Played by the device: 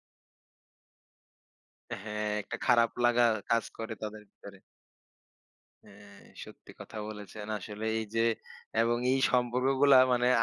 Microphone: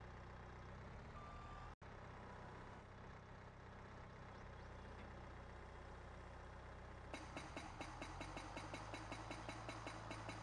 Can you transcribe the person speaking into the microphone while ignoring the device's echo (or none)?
none